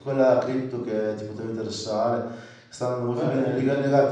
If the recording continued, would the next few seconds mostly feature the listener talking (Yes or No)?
No